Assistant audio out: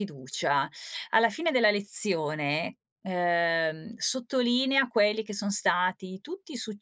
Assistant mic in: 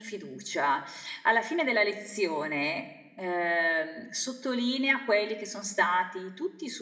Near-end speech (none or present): none